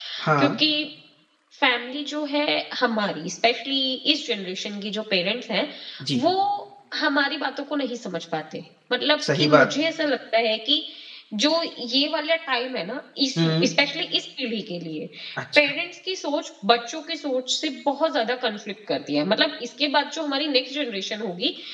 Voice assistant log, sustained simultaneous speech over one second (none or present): none